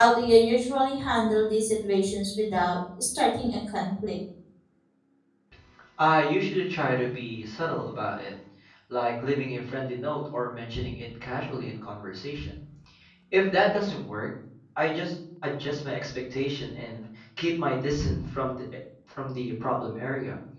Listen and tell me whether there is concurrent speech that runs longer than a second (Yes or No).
No